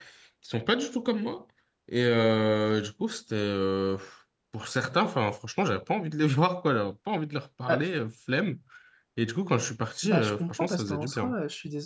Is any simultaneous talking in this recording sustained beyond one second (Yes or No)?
Yes